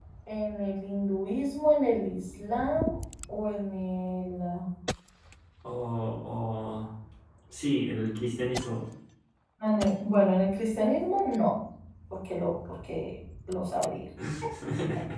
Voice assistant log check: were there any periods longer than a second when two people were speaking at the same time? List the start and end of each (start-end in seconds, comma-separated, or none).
none